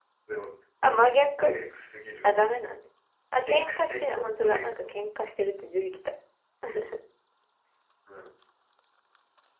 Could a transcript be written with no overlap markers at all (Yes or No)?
No